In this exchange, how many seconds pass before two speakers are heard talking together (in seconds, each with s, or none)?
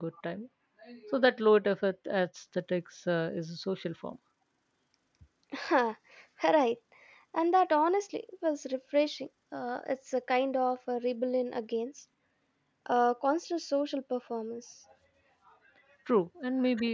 none